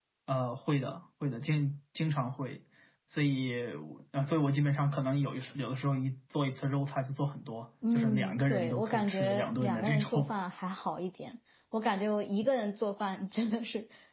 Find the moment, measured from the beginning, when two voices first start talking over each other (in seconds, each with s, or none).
7.8 s